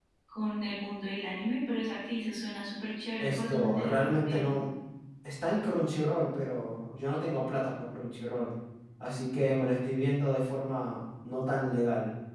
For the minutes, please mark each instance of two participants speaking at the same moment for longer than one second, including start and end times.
3.2-4.6

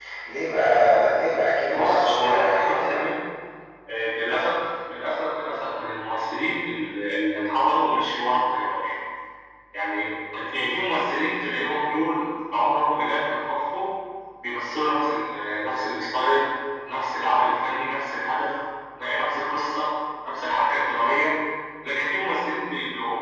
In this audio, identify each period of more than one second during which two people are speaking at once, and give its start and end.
1.7-3.1

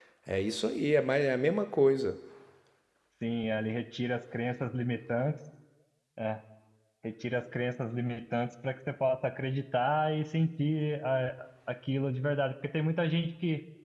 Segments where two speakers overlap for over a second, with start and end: none

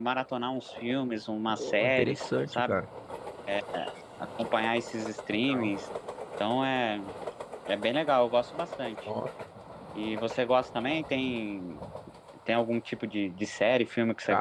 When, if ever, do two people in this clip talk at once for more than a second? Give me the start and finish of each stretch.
1.5-2.8

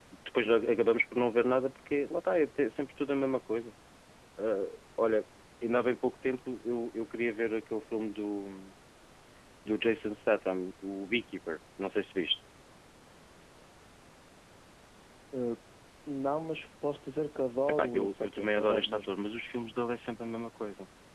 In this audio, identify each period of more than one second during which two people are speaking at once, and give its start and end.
17.7-19.1

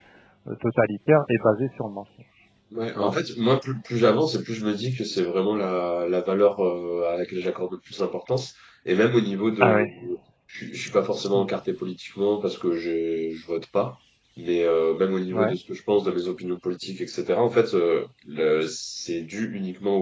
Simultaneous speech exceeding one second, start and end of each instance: none

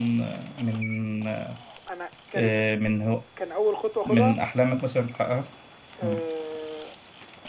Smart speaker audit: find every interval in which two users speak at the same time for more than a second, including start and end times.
none

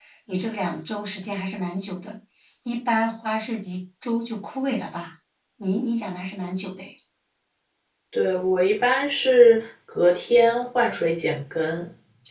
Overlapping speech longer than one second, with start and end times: none

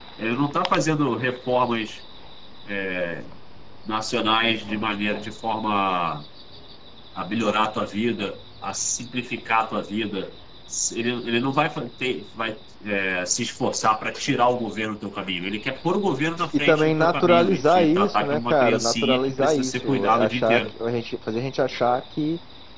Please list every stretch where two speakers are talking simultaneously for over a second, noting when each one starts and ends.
16.7-20.7

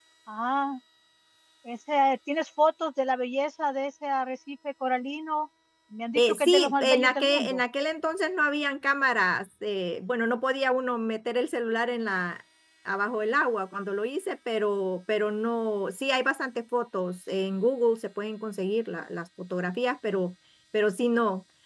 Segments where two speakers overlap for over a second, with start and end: 6.2-7.6

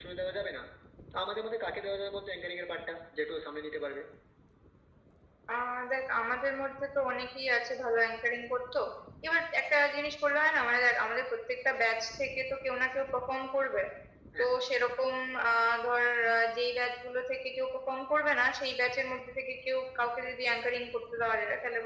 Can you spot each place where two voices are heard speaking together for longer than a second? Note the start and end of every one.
none

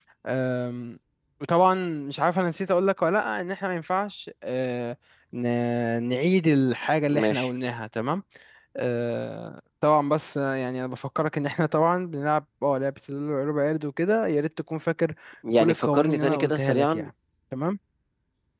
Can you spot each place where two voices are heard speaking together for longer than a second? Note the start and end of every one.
15.6-17.1

